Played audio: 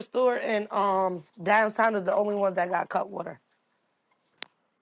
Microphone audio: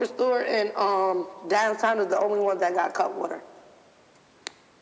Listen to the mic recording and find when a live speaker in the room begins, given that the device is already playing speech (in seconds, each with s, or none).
none